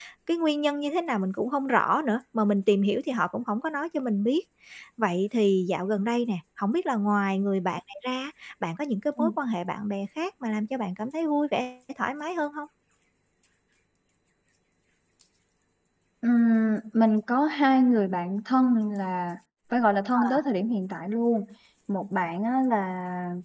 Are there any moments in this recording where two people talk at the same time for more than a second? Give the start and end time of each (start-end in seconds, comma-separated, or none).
none